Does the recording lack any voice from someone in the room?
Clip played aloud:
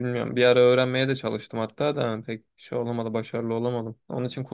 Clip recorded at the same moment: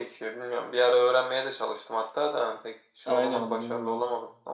No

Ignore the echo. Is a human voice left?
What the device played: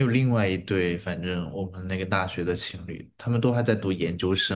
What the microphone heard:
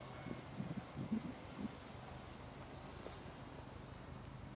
No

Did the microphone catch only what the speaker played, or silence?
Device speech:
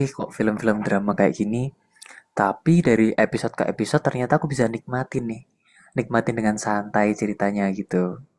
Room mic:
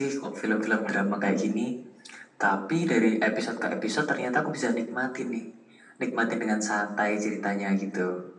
Yes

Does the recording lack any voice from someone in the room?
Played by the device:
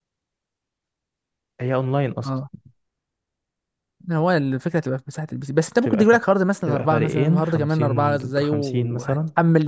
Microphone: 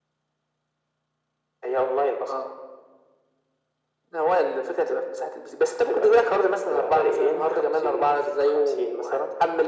Yes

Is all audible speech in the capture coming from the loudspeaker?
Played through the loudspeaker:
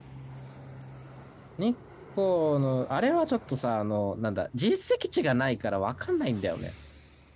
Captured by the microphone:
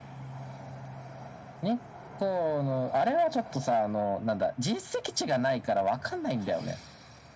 Yes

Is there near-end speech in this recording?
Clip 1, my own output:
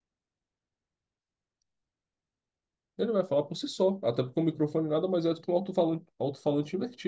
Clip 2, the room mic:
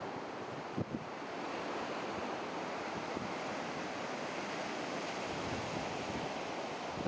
No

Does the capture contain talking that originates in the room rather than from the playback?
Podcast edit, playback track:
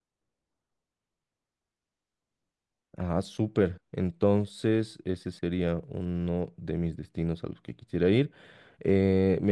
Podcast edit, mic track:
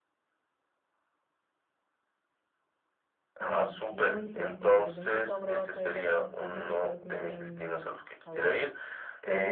Yes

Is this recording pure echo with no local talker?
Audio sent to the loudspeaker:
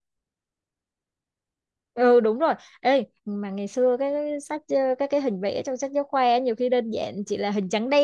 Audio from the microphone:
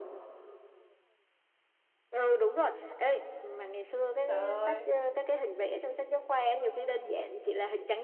No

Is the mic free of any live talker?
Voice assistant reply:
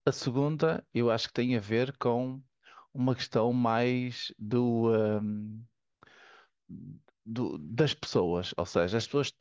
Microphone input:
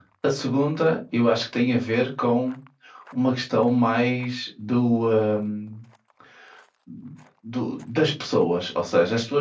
Yes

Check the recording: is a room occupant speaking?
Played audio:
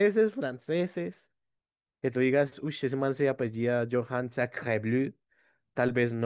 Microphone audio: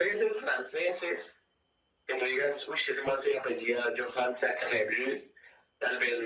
No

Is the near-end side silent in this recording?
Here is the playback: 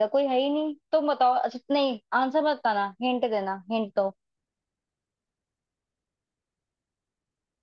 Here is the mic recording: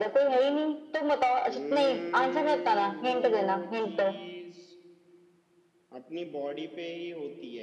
No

